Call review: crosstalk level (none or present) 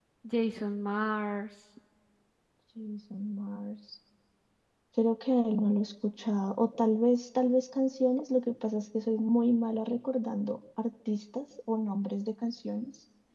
none